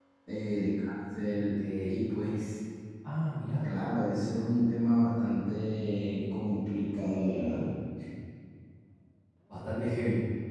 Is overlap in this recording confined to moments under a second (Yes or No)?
Yes